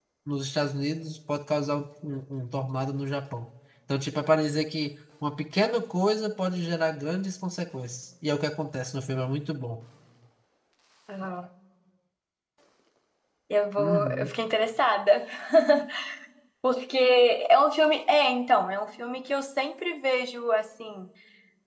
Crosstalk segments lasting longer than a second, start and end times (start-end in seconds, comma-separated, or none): none